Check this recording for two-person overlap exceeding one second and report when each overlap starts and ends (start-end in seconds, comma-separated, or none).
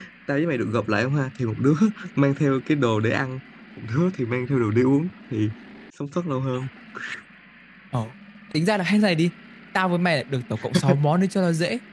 none